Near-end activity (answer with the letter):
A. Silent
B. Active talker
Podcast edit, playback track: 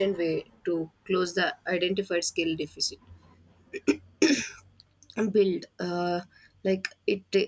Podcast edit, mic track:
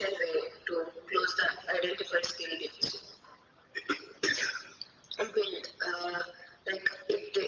A